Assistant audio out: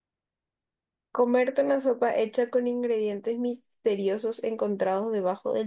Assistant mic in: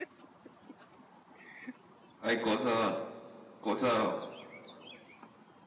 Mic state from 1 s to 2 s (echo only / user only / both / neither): neither